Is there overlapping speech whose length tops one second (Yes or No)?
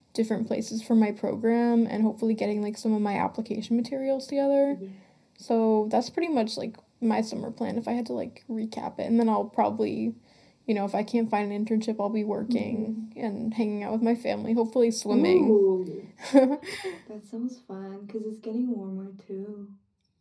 No